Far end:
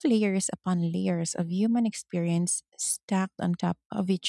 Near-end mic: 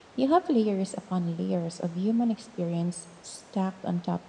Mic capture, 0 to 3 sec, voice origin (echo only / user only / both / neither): echo only